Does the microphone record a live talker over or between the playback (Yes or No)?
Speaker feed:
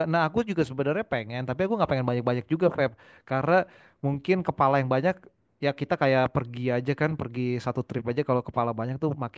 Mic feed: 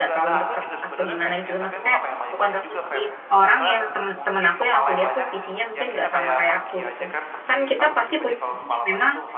Yes